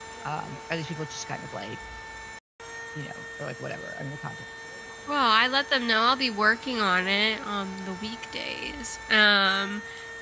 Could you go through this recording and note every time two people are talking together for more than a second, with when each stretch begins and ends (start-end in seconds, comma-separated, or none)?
none